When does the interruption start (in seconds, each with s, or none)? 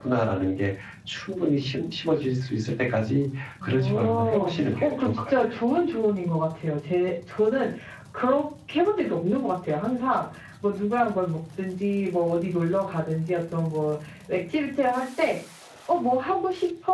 3.6 s